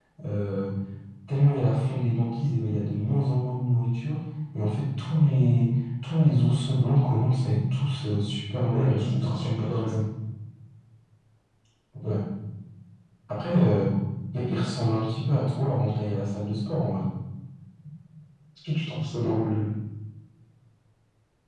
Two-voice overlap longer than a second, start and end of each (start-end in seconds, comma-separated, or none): 8.7-9.9